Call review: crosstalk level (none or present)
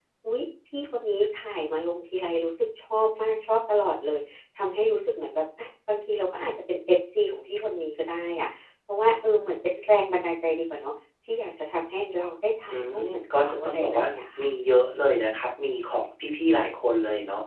present